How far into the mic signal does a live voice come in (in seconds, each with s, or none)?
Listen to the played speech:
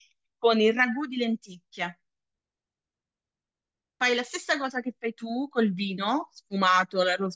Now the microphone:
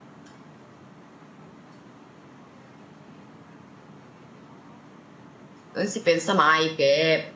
5.7 s